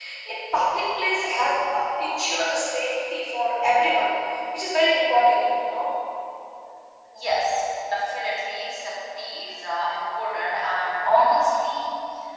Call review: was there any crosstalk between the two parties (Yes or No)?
No